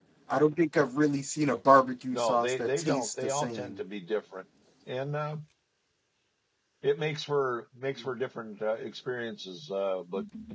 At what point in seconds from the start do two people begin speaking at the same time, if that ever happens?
2.1 s

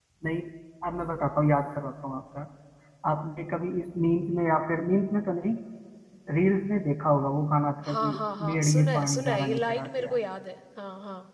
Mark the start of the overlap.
7.8 s

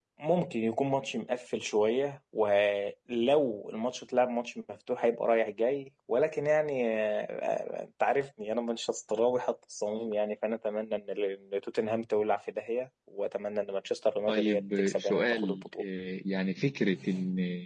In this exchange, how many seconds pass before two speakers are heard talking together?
14.3 s

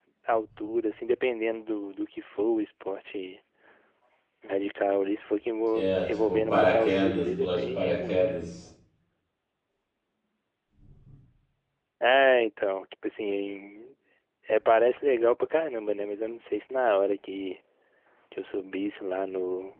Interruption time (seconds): 5.7 s

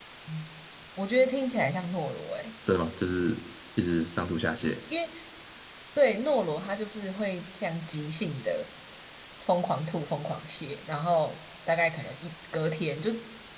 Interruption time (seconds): none

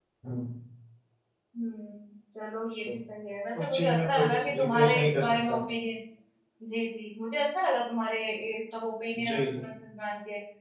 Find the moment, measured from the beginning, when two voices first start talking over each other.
3.6 s

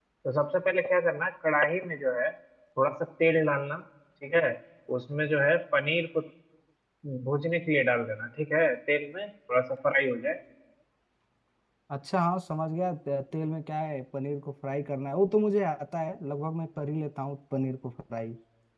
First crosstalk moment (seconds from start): none

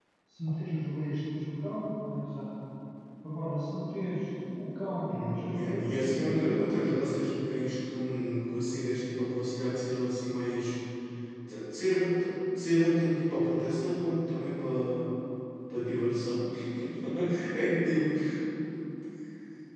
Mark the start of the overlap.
5.0 s

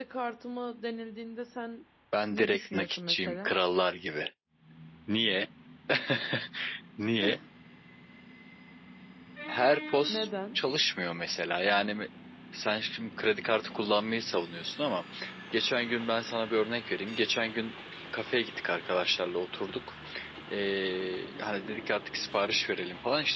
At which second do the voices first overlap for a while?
2.3 s

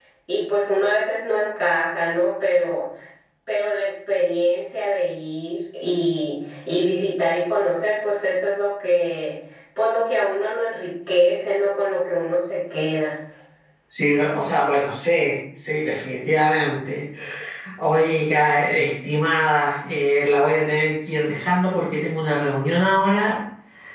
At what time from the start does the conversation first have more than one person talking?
none

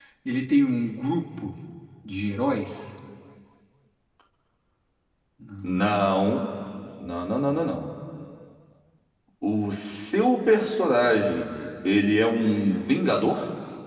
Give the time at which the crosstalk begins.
none

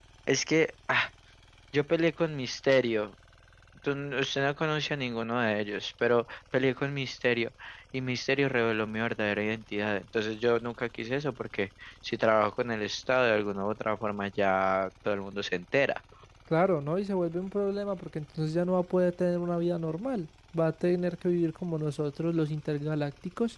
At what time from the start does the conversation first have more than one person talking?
none

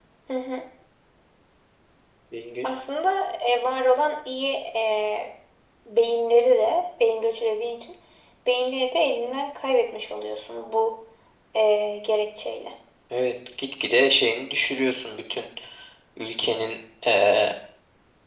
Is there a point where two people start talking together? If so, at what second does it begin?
none

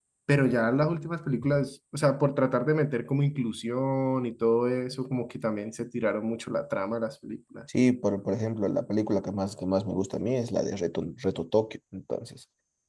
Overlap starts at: none

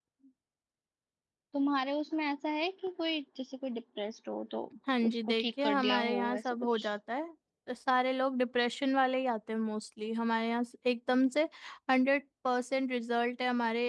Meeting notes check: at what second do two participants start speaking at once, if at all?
5.1 s

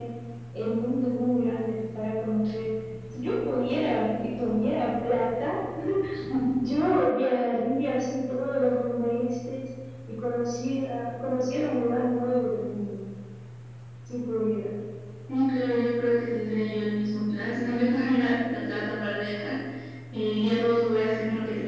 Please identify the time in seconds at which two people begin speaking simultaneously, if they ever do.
none

